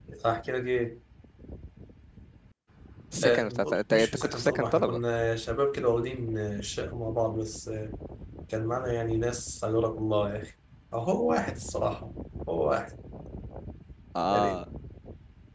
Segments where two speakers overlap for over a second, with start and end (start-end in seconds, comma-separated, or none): 3.2-5.0